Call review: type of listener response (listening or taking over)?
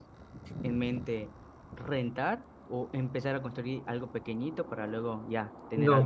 taking over